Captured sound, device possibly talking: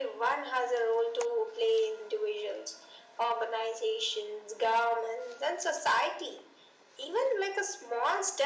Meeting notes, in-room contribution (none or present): none